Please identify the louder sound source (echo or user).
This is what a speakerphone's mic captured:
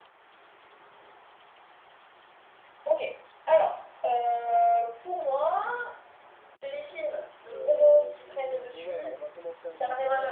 echo